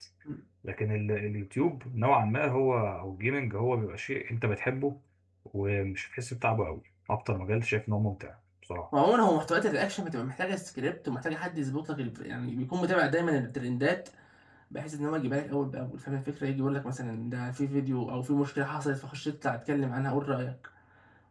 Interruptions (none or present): none